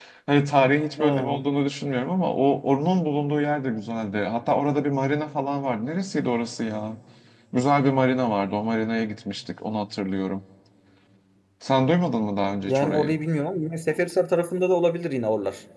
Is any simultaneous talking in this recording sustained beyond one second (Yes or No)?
No